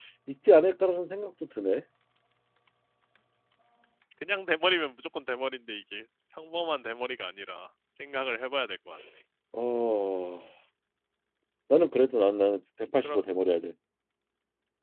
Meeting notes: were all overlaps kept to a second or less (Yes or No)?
Yes